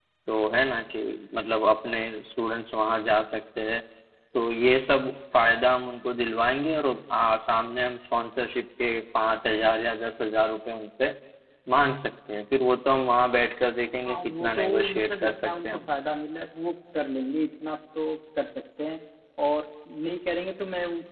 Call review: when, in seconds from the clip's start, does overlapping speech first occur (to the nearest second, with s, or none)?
14 s